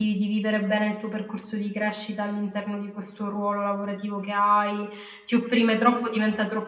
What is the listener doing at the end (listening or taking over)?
listening